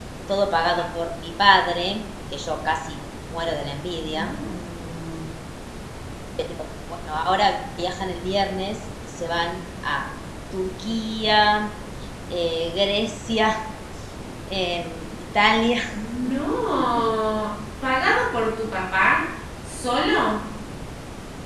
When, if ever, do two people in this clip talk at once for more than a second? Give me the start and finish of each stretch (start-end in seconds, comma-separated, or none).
none